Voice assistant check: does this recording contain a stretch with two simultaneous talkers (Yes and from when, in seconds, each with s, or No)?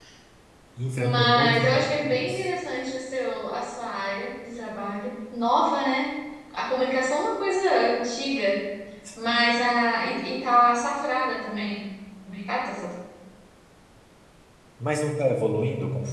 Yes, from 1.0 s